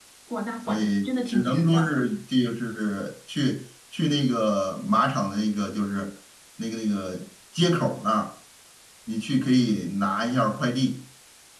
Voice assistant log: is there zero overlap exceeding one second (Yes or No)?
No